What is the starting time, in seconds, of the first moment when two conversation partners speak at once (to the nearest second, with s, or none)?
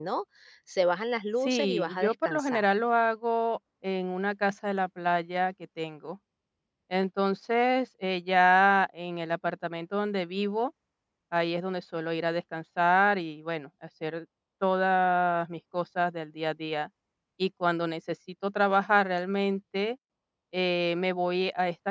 1 s